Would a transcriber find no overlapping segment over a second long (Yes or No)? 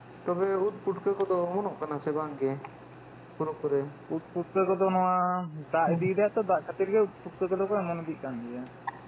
Yes